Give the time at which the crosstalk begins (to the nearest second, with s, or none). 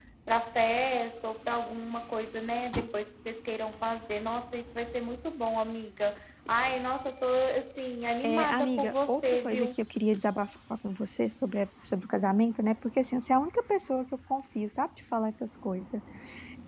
8 s